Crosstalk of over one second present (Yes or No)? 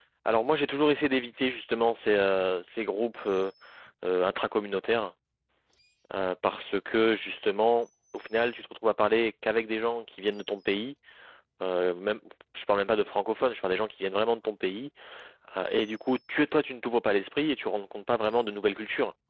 No